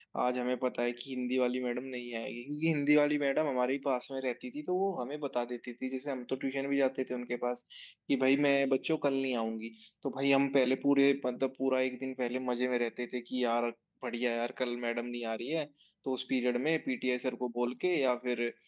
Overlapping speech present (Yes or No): No